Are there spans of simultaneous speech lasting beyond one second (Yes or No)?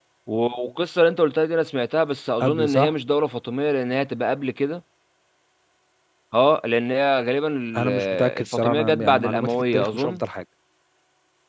Yes